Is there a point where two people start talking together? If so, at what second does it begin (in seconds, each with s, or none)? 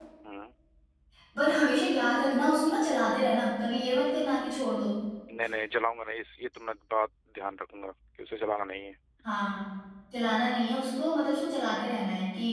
none